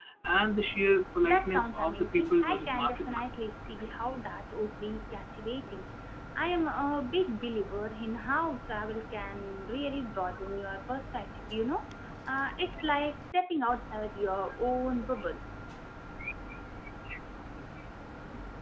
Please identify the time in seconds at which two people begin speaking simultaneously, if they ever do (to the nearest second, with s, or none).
1 s